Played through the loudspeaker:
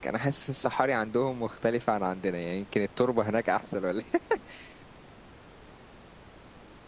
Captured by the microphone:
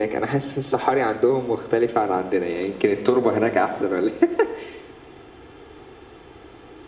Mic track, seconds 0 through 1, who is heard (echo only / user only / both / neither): echo only